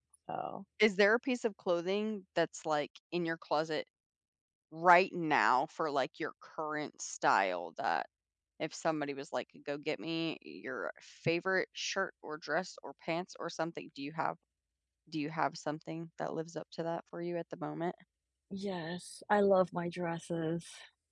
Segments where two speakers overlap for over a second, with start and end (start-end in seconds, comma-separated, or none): none